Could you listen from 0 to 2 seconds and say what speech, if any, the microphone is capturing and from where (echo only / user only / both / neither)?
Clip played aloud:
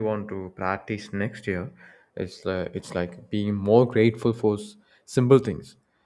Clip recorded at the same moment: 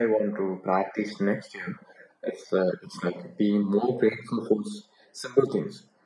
echo only